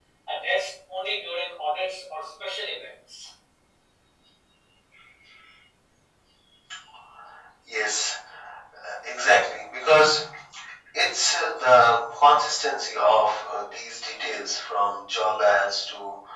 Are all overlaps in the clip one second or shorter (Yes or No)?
Yes